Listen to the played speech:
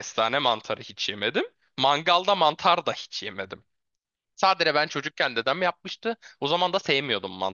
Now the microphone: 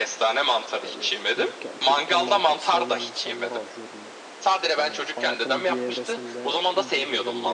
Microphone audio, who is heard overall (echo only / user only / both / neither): both